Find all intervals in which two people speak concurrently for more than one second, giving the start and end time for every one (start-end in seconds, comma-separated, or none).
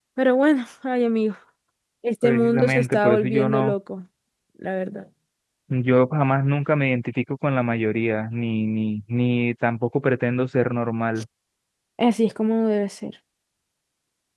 2.2-3.7